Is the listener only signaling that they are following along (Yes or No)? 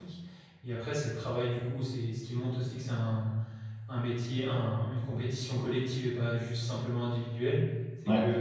Yes